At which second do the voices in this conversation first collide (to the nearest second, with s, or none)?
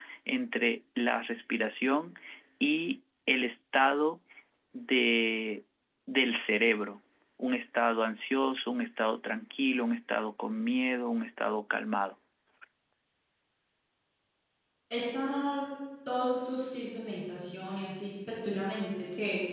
none